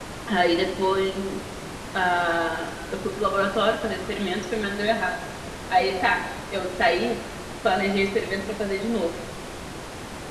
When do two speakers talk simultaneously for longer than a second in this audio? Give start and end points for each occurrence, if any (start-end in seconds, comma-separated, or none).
none